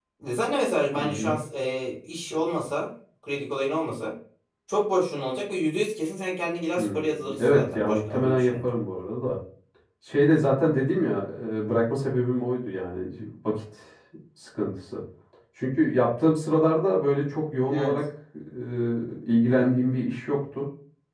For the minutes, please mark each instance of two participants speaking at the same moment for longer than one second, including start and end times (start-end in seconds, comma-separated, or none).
6.8-8.5